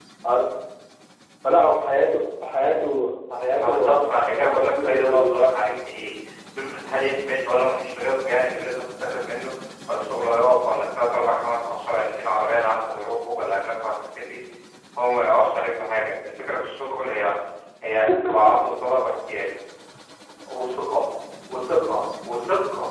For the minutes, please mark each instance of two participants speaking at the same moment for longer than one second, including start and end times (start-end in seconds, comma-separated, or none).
3.6-5.5